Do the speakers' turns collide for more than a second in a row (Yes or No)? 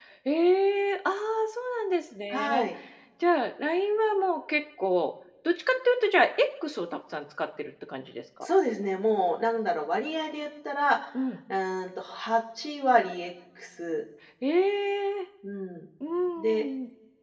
No